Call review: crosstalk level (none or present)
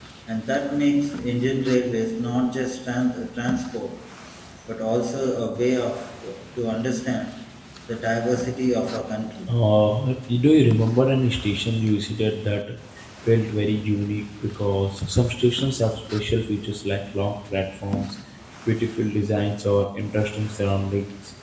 none